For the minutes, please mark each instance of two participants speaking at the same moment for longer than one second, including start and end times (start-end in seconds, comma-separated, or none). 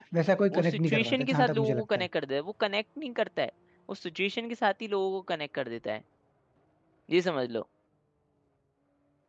0.5-2.1